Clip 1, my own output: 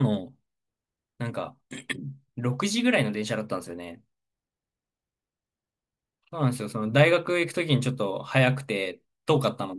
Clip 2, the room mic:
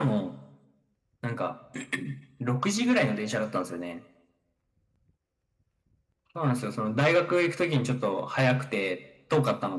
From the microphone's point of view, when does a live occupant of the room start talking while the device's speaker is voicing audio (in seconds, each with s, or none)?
none